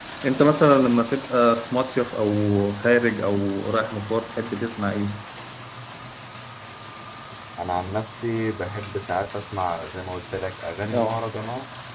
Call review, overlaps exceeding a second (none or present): none